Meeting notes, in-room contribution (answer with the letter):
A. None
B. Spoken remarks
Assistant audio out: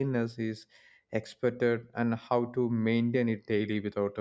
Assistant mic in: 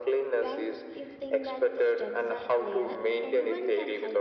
B